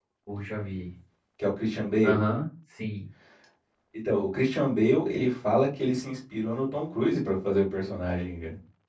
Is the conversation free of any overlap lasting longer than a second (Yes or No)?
Yes